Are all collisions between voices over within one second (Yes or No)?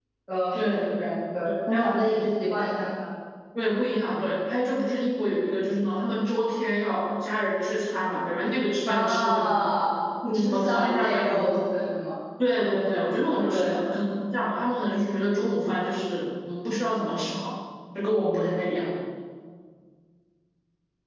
No